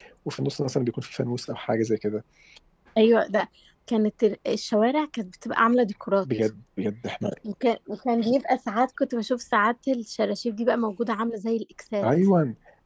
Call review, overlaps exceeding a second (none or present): none